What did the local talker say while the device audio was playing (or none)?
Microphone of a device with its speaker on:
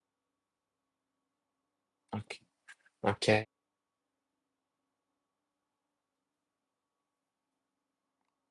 Ok. Ok.